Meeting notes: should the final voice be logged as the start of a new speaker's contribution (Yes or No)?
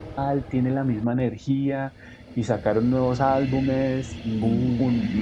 No